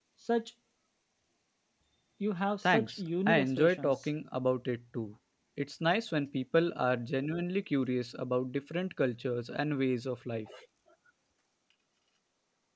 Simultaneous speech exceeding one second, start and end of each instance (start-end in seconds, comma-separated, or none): 2.6-3.9